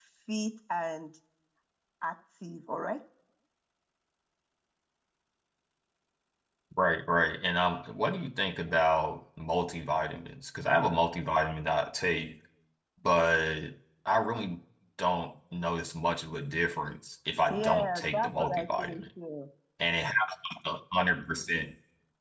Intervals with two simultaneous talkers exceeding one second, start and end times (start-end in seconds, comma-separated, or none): 17.5-18.9